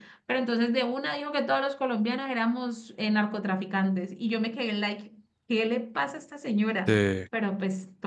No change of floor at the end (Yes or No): Yes